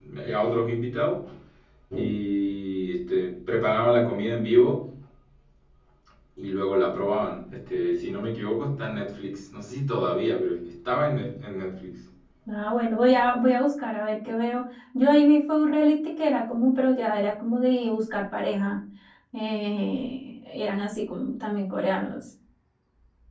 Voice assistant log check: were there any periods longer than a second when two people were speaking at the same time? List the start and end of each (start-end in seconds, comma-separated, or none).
none